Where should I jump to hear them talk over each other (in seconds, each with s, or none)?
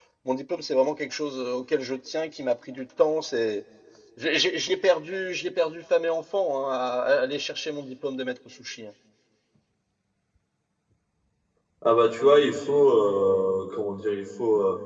none